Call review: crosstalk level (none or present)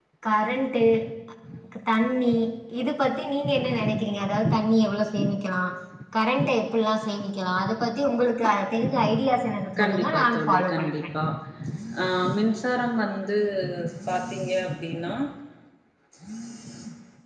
present